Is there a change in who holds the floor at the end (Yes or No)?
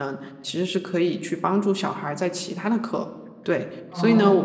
No